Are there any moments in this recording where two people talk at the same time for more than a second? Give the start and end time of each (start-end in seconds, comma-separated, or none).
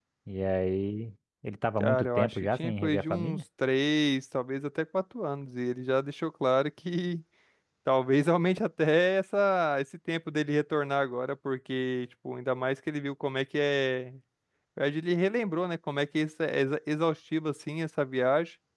1.8-3.4